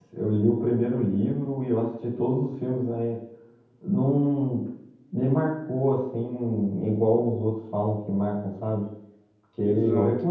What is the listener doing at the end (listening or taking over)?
listening